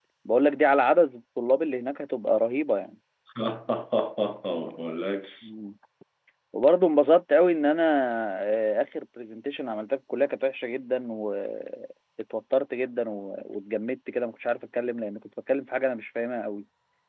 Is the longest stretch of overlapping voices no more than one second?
Yes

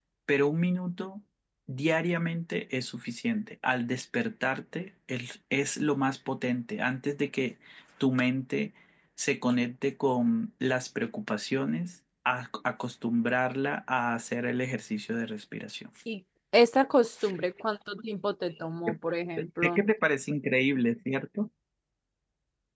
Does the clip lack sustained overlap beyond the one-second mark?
Yes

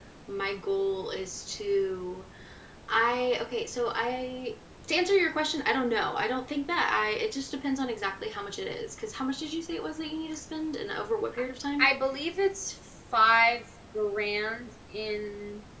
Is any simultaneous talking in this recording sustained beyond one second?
No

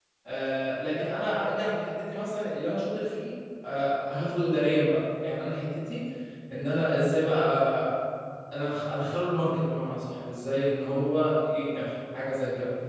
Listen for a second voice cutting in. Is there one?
No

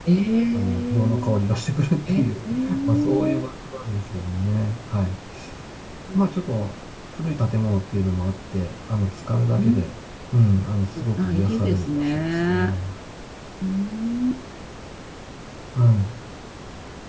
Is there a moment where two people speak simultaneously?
Yes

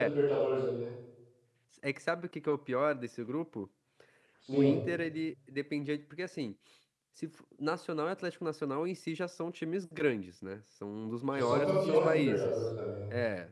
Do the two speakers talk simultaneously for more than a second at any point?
Yes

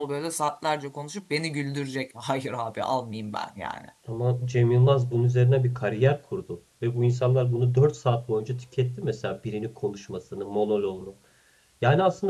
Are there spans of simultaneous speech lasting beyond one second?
No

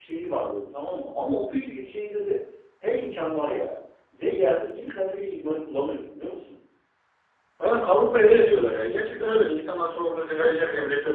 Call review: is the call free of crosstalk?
Yes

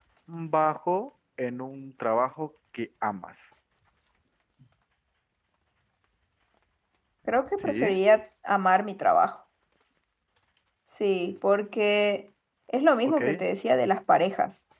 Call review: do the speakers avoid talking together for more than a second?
Yes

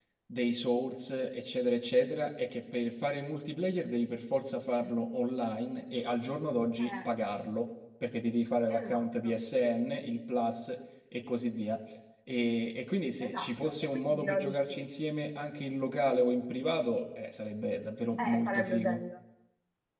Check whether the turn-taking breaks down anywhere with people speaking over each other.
Yes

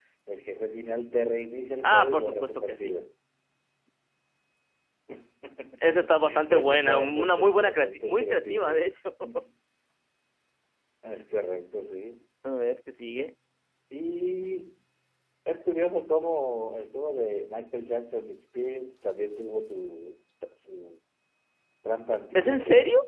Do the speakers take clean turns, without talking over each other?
No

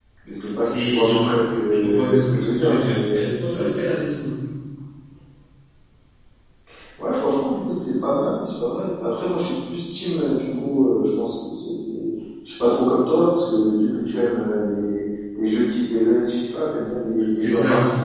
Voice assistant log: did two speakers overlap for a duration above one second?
Yes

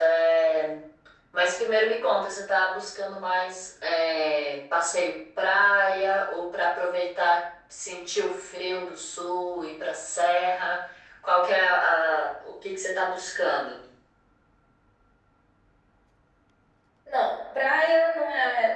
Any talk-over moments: No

